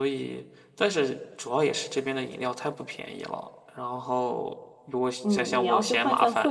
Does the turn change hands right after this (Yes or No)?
Yes